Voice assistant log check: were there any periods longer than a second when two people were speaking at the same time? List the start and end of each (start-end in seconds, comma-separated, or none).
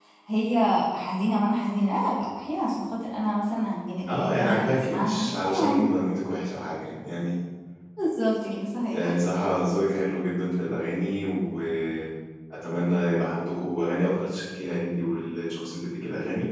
4.1-5.8